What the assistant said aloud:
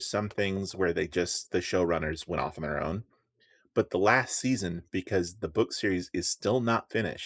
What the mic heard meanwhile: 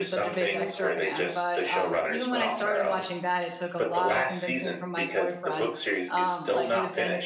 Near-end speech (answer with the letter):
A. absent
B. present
B